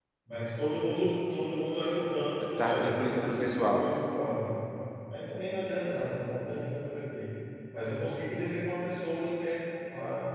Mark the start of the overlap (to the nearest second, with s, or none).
3 s